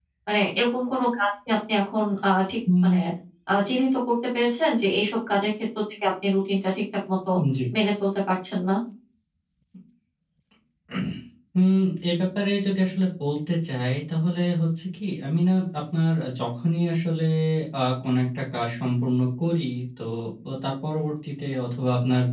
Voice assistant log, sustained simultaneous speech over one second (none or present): none